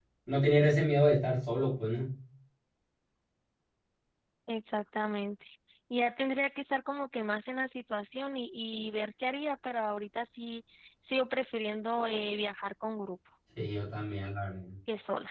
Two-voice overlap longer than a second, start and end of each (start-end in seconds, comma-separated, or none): none